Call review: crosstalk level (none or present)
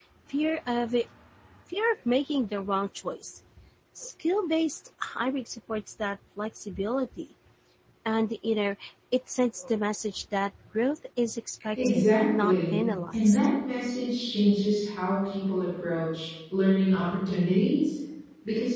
present